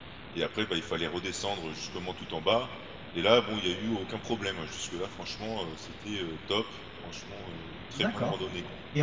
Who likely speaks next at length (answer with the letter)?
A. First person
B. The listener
B